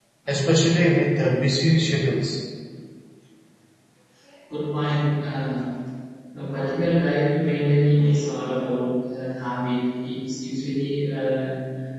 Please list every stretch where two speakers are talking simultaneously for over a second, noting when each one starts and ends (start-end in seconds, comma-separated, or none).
none